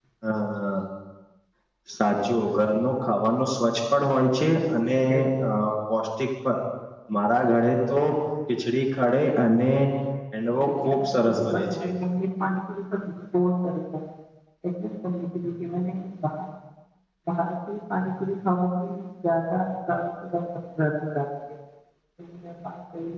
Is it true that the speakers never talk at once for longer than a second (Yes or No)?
No